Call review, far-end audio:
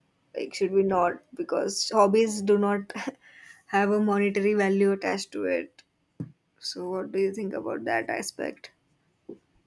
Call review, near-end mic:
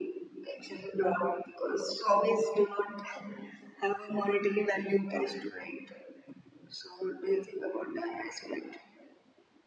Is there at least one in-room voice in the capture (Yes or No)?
No